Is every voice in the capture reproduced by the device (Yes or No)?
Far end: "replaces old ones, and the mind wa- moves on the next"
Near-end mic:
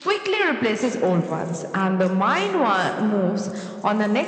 Yes